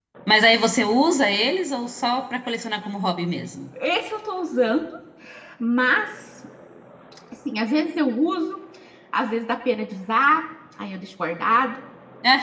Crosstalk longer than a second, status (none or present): none